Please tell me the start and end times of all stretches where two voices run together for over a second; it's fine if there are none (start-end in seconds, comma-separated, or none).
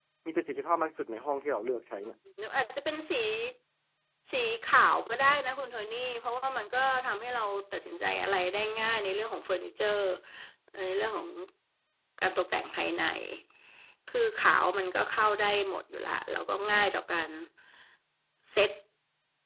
none